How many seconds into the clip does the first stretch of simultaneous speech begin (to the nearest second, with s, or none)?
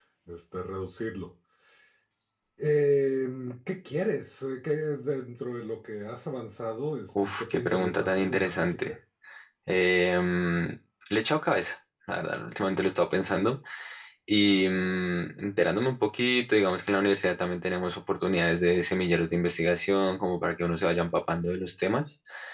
7 s